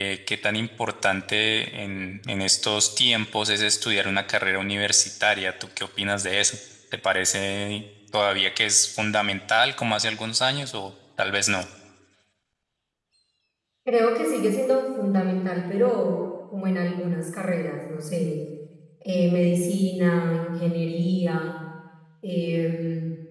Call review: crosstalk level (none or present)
none